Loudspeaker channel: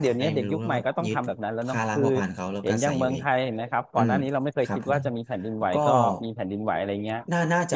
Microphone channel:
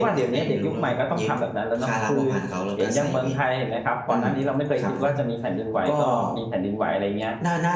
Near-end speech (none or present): none